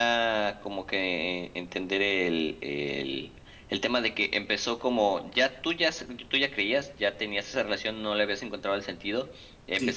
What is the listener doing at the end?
listening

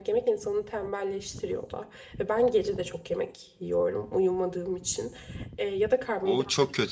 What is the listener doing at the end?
taking over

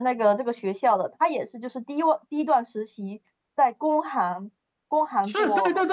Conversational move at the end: taking over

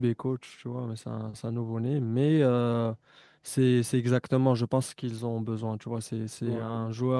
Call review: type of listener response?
listening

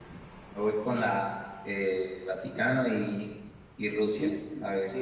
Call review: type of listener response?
taking over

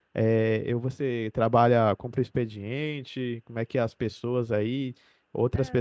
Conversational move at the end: listening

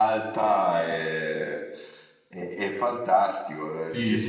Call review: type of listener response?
listening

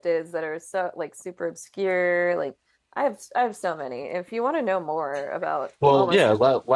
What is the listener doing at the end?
taking over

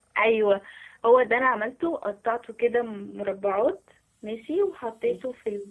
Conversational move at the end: listening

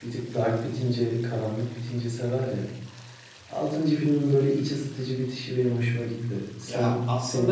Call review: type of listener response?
taking over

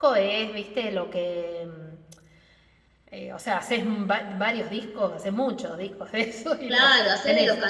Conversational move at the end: taking over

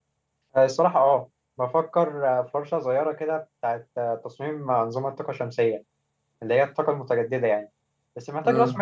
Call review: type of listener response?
listening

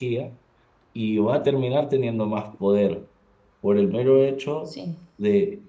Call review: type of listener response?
listening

